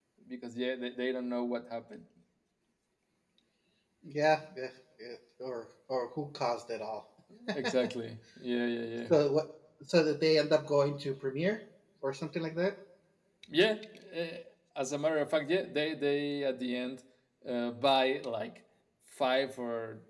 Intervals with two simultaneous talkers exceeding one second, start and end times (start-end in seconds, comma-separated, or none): none